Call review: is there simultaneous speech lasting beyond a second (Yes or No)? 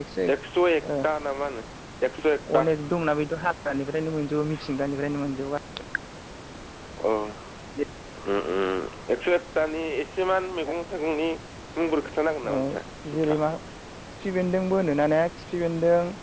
No